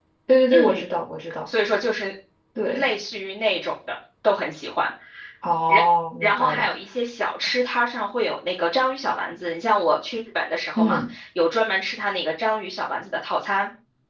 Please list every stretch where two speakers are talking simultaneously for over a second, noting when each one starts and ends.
none

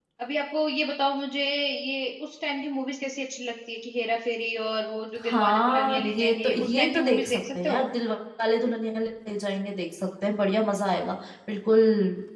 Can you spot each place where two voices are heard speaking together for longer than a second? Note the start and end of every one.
5.2-7.9

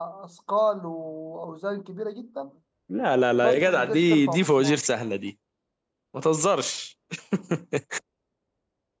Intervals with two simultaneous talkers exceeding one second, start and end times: 3.4-4.8

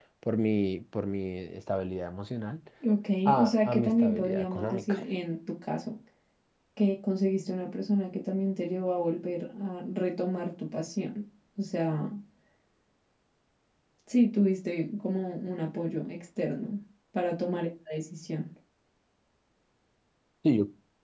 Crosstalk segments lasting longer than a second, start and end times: 3.2-5.0

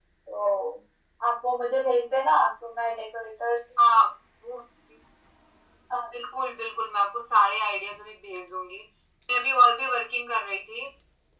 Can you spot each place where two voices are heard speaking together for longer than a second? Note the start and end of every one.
none

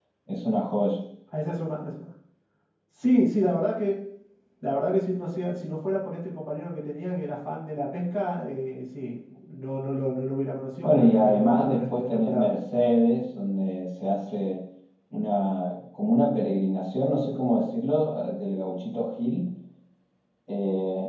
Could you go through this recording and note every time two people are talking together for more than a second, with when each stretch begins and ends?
10.8-12.5

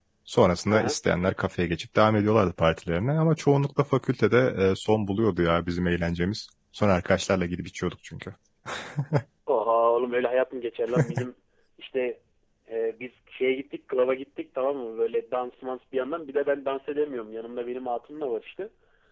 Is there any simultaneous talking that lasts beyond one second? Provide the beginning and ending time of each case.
none

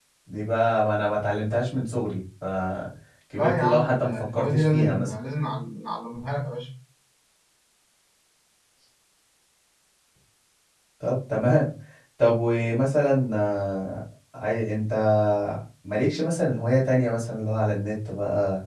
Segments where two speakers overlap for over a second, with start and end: 3.3-5.1

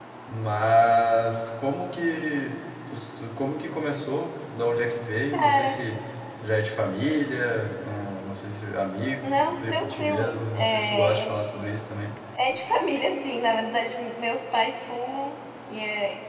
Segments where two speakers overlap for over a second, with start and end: 9.2-11.3

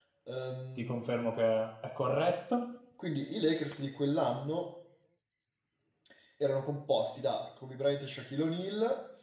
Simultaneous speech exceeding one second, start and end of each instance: none

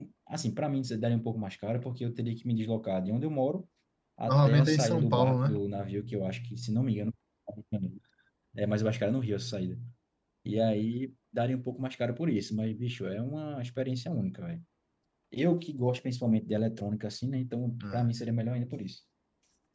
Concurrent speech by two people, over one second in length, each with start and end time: 4.3-5.5

